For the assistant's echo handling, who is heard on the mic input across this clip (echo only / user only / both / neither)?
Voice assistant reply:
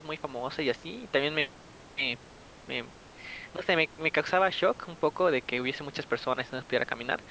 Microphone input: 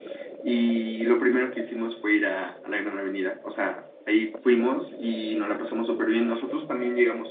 user only